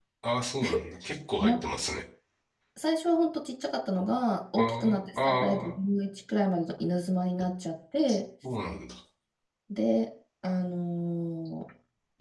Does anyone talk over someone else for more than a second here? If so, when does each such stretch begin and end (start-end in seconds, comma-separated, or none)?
4.6-5.8